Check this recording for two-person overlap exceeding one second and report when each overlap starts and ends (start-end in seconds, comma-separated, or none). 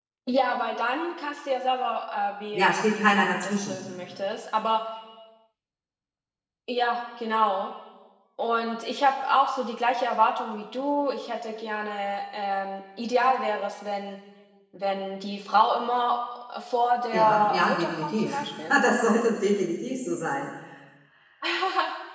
2.5-3.8, 17.1-18.7